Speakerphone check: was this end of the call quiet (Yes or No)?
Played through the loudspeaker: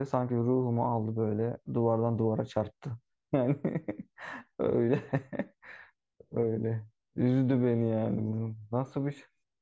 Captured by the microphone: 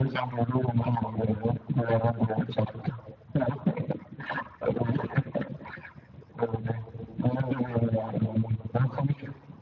Yes